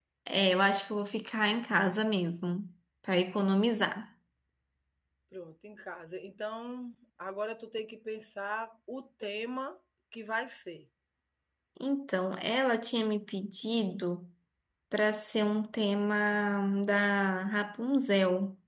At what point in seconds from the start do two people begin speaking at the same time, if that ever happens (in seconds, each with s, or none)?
none